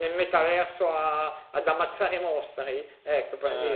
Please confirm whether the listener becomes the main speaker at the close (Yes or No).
No